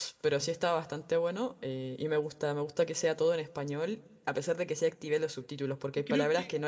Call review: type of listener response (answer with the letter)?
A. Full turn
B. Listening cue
B